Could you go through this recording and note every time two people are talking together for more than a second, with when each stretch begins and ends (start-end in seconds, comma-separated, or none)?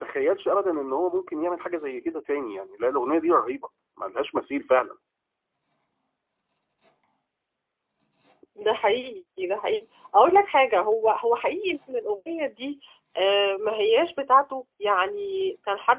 none